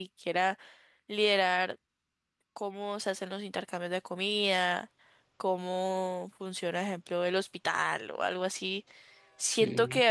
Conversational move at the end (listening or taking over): listening